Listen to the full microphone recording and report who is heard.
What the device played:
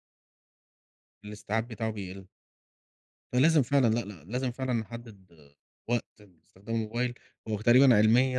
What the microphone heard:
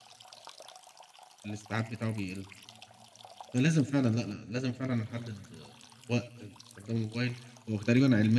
echo only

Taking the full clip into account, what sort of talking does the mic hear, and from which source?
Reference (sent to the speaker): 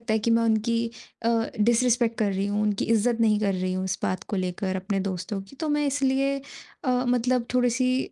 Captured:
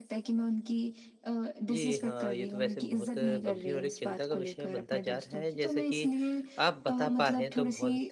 both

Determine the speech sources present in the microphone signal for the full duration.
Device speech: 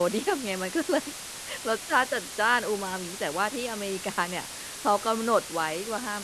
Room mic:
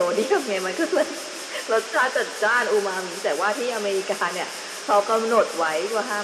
echo only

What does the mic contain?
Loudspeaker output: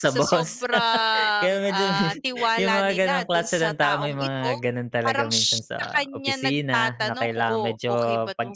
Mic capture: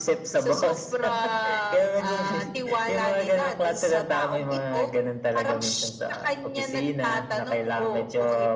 echo only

